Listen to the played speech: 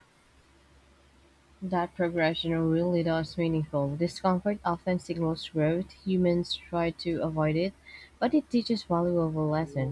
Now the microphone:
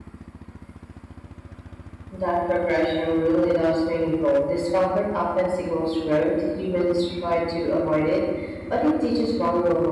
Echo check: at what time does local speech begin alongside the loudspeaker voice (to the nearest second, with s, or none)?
none